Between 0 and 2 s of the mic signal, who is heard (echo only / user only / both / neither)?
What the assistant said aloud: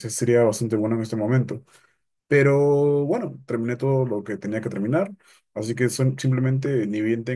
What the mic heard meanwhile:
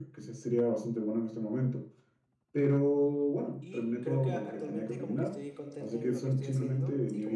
echo only